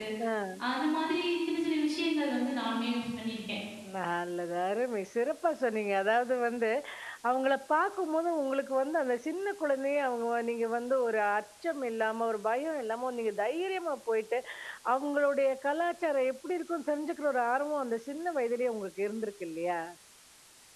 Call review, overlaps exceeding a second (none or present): none